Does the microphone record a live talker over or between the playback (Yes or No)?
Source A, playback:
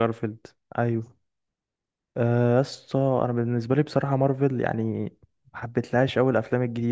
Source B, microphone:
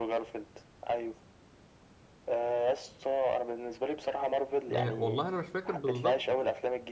Yes